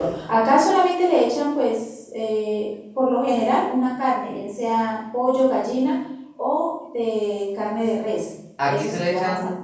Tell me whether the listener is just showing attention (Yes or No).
No